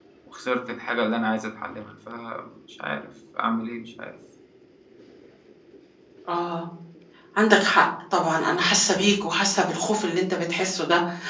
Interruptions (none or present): none